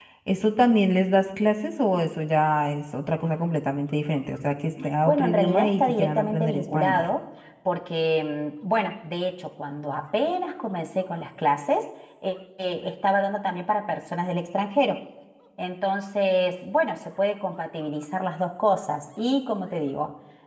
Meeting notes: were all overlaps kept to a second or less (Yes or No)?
No